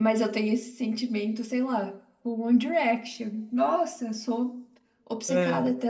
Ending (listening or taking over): listening